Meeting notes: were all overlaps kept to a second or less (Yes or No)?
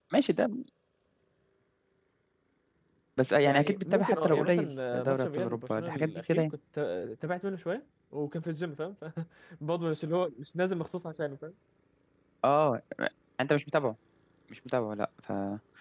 No